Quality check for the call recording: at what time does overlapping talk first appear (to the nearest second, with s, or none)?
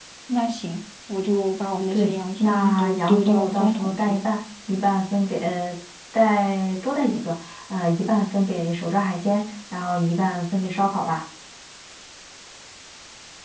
2 s